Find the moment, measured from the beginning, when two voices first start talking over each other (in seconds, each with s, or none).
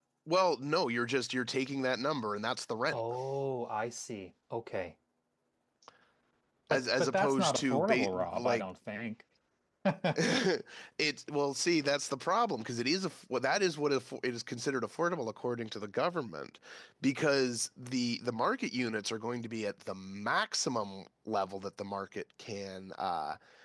6.7 s